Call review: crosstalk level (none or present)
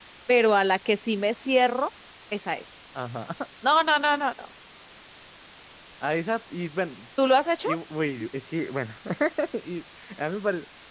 none